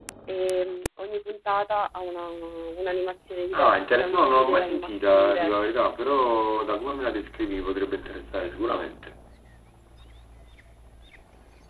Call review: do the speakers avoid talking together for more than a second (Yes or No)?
No